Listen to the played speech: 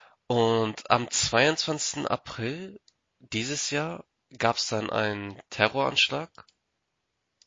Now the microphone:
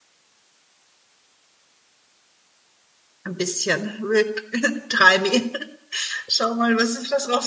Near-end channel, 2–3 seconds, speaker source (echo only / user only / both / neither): neither